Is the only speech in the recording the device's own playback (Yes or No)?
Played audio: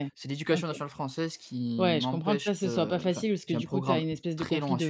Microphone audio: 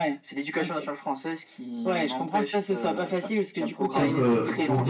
No